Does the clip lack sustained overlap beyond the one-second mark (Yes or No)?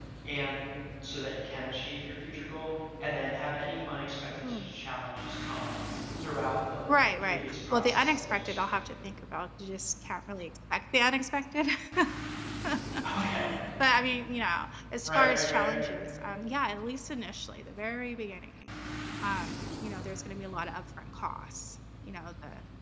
No